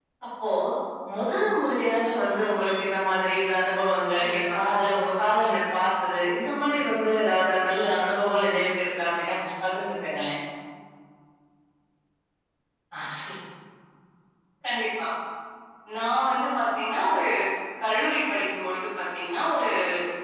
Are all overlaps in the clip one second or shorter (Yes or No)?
Yes